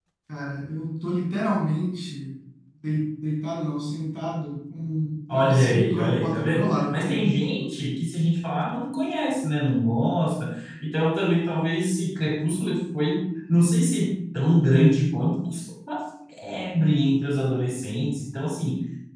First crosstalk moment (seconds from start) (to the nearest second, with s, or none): 5 s